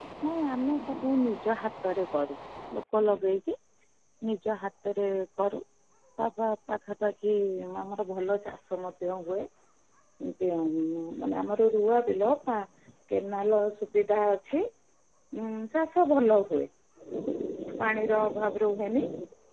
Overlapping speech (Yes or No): No